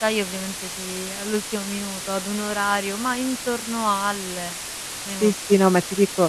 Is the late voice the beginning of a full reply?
Yes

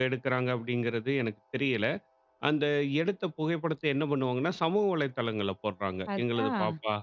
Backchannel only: Yes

